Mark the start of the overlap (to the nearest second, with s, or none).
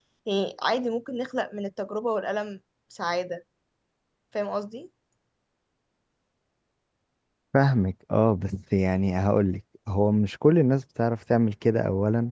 none